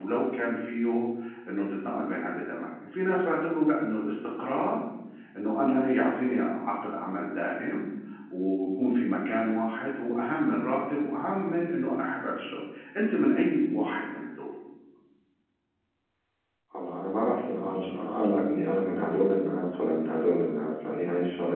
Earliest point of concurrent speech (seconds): none

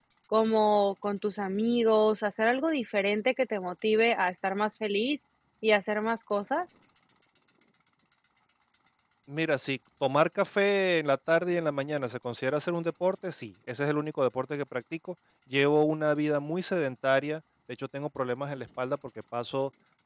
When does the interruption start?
none

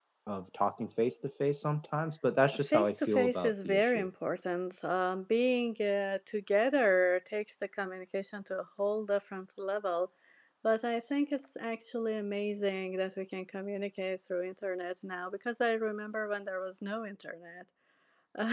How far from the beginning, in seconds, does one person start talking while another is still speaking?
2.7 s

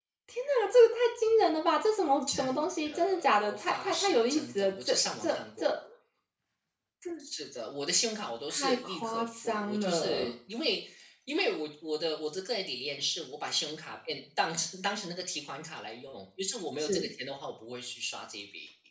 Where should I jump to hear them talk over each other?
2.3 s

